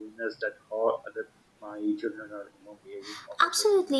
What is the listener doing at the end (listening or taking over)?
taking over